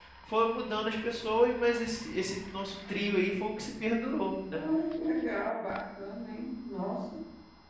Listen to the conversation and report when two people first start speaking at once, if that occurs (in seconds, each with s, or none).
none